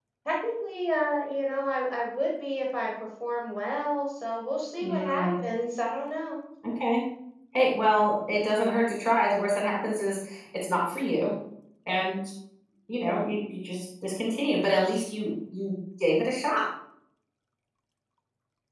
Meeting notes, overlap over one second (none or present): none